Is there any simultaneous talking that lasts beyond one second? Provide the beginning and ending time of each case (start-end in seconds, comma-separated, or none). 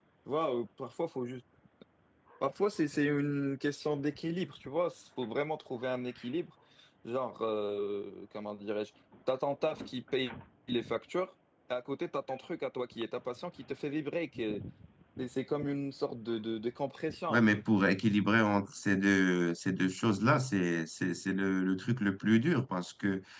none